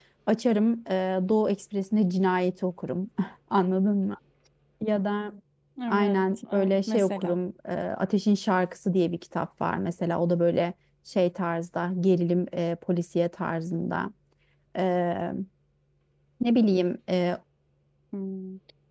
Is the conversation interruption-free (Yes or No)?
No